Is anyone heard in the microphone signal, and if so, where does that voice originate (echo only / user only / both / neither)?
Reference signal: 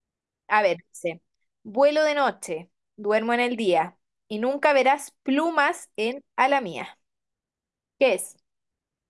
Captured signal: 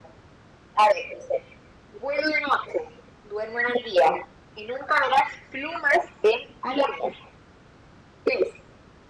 echo only